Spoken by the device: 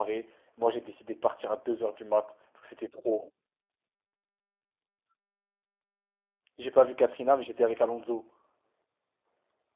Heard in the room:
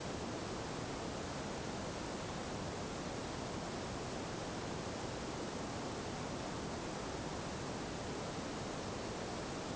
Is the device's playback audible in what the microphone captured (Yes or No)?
No